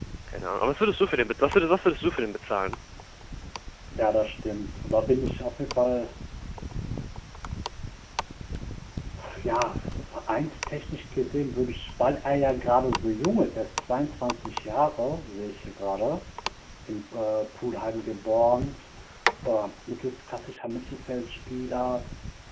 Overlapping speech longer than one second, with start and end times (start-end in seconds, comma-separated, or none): none